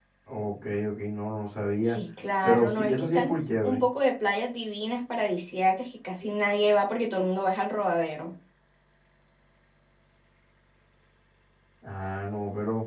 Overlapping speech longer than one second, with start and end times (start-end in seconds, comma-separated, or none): 2.4-3.8